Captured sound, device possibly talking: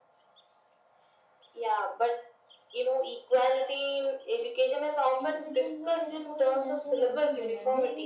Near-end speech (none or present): present